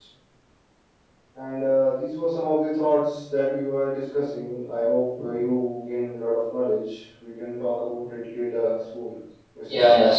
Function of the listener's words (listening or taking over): taking over